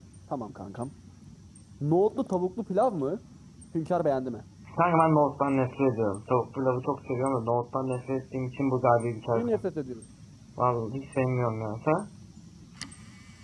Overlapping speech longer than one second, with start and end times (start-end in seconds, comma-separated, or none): none